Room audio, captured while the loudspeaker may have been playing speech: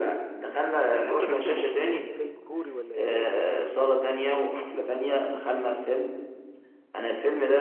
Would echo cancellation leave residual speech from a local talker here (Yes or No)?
Yes